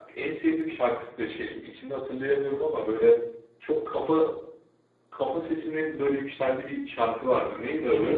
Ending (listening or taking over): taking over